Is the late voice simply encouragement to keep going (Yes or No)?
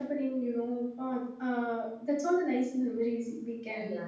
No